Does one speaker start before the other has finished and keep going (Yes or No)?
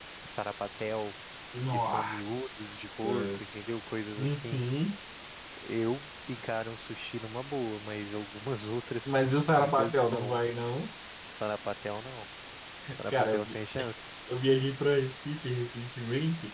Yes